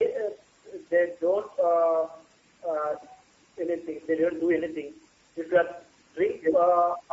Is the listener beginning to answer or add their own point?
No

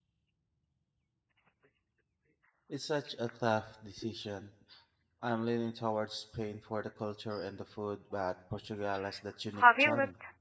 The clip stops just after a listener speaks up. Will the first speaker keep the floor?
No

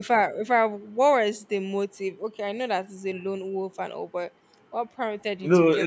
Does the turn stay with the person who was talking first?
No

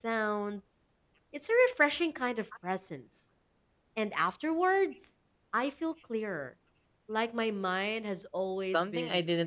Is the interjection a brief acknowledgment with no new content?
No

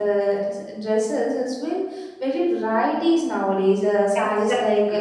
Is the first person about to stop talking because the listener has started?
Yes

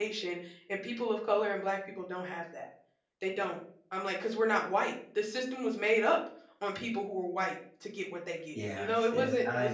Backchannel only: No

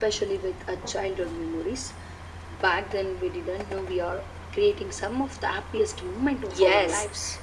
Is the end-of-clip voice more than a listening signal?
Yes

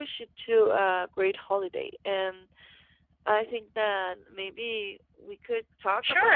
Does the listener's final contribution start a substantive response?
Yes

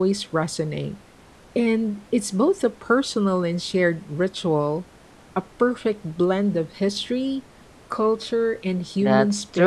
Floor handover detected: Yes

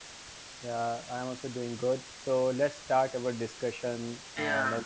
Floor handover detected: No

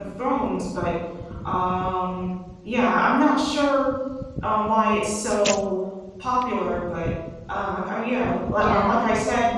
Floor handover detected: No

